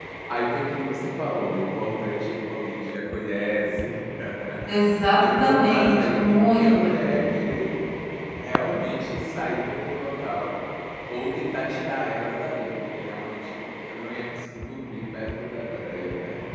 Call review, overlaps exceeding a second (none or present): present